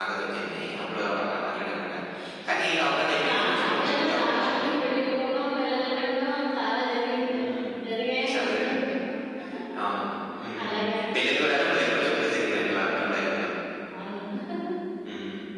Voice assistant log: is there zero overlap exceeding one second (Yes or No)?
No